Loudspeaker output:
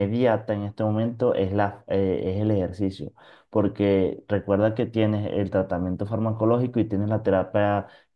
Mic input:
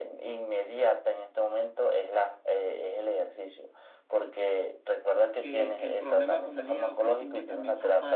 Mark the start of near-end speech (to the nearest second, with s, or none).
5 s